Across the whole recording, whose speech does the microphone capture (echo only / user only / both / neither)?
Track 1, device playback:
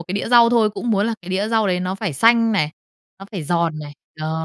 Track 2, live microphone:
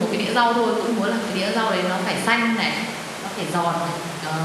echo only